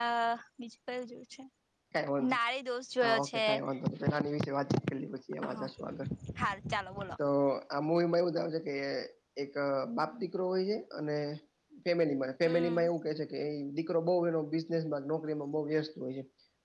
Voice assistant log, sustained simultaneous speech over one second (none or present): none